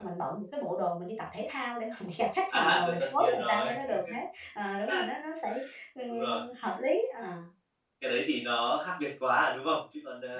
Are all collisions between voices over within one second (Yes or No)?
No